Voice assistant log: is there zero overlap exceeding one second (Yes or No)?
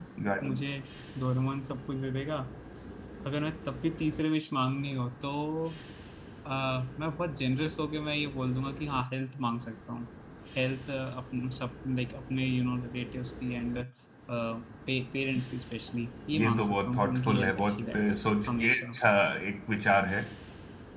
No